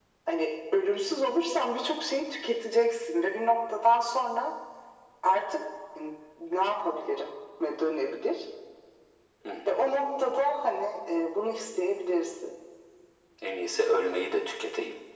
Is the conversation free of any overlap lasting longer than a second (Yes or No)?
Yes